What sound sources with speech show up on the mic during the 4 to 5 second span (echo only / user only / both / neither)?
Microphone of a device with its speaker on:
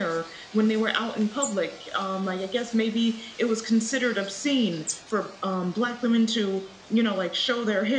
echo only